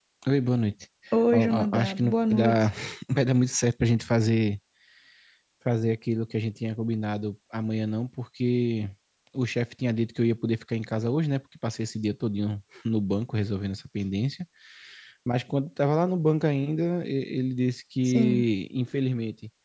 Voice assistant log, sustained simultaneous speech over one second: present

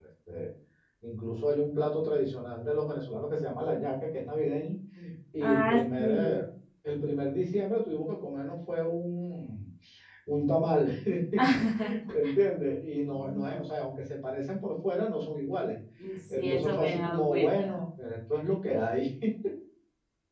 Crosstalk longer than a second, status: present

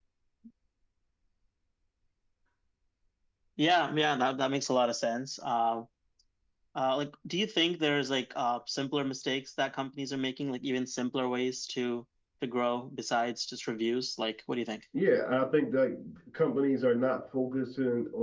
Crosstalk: none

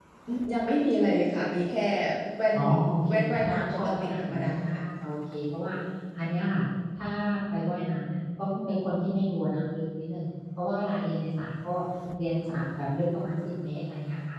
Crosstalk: present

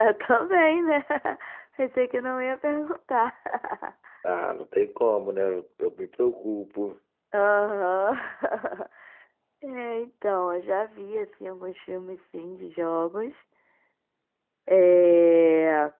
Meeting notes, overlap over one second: none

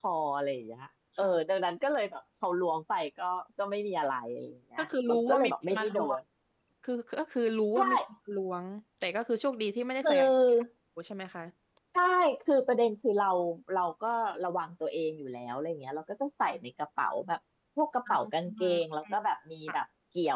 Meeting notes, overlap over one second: present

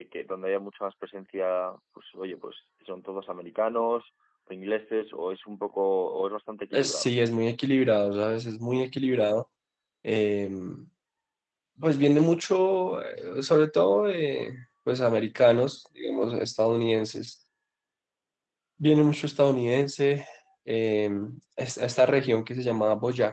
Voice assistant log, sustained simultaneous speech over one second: none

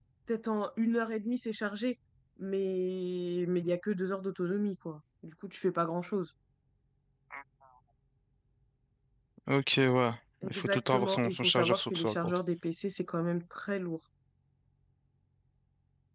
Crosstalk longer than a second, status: present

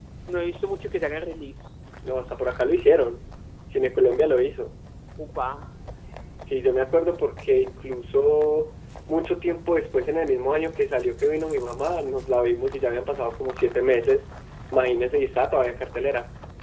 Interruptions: none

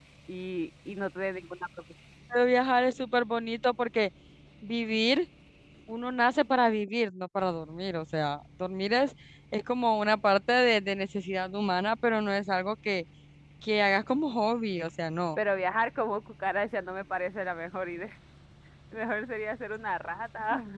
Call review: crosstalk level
none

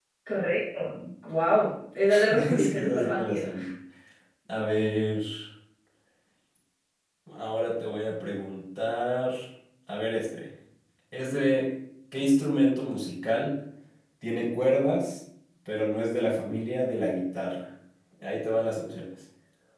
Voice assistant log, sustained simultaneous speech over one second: present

